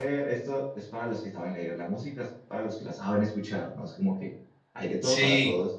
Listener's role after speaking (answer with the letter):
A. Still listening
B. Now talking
A